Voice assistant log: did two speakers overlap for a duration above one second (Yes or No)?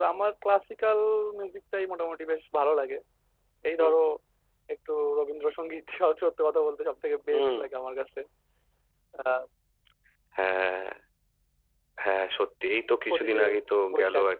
No